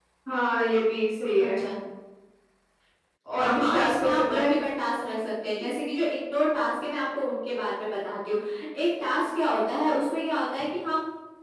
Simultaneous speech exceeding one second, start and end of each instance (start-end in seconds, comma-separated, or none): 3.4-4.6